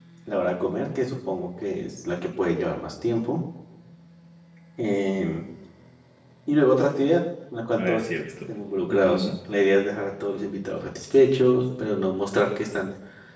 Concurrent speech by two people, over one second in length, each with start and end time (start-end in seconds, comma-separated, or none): 7.8-9.4